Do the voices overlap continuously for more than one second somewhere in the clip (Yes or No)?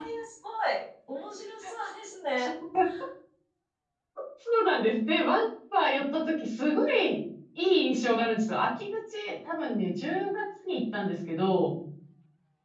No